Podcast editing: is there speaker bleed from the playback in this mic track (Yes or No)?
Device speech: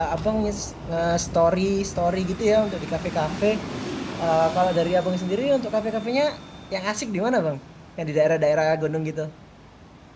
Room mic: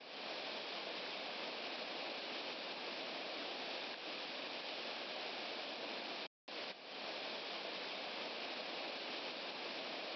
No